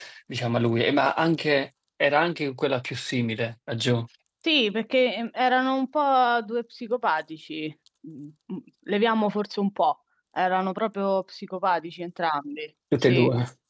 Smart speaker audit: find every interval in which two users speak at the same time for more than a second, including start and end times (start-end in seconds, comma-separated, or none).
none